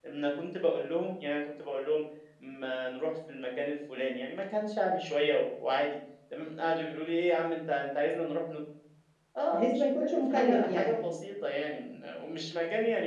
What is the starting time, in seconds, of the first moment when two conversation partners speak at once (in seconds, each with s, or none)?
9.5 s